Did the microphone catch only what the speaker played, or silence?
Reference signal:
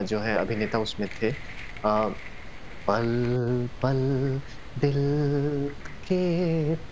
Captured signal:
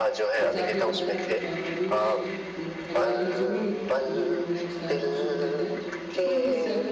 No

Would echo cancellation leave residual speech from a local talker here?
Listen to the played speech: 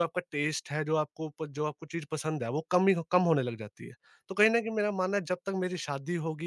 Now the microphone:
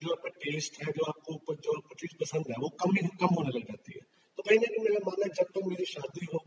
No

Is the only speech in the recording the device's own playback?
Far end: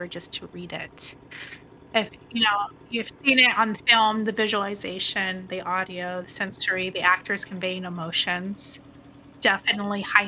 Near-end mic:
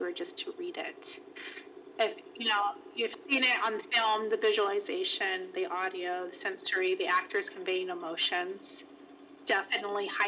Yes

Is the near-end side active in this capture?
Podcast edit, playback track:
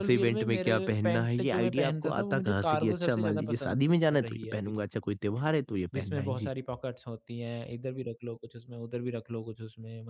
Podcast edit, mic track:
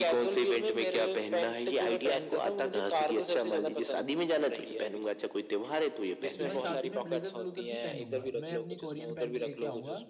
Yes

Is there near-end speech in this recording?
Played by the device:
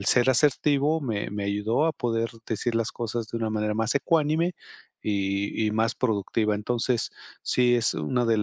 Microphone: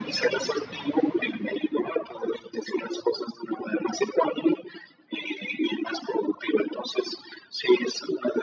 No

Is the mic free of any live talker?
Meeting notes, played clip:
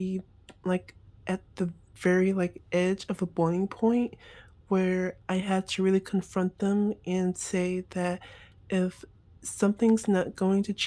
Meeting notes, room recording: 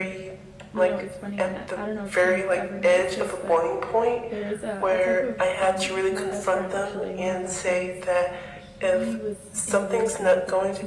No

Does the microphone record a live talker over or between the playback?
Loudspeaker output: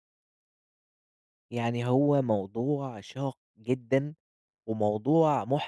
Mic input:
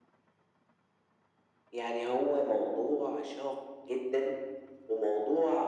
No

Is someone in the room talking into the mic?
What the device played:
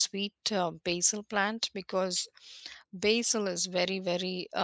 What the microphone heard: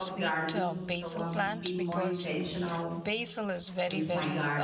Yes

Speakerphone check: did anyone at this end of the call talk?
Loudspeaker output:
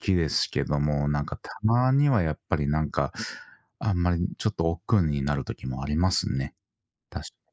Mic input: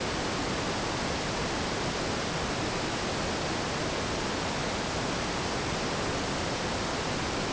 No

